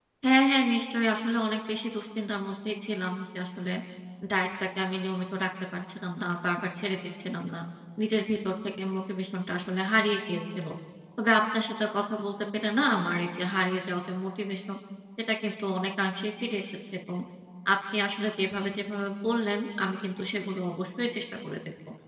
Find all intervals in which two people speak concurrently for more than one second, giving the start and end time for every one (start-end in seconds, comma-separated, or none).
none